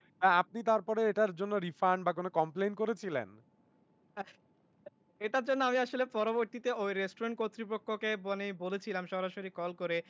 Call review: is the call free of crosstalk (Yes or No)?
Yes